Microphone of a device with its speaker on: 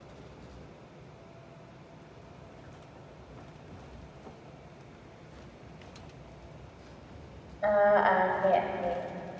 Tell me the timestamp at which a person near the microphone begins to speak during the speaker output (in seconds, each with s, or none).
7.6 s